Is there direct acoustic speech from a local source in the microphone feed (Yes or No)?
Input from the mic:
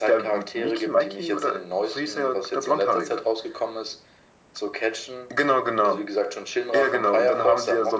No